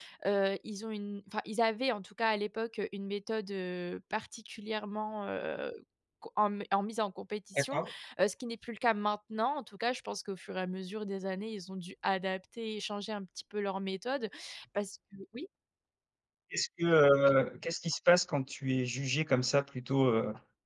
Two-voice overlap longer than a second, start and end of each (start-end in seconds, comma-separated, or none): none